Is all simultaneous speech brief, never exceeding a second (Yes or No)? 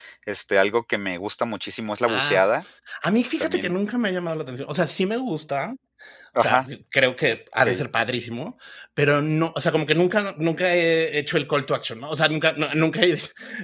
Yes